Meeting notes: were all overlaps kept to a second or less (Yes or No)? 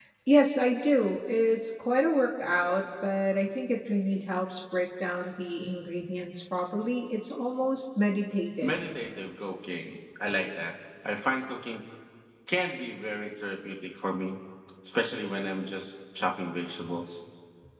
Yes